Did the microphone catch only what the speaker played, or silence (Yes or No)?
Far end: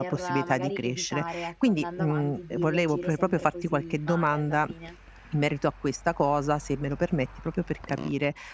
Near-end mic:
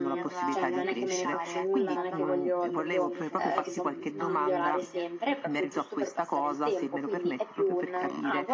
No